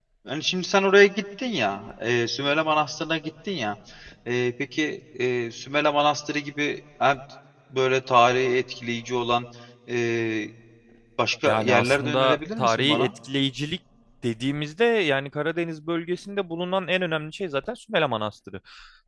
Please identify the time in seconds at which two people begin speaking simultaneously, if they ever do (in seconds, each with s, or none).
11.4 s